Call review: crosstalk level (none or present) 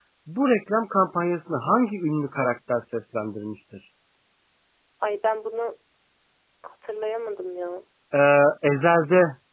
none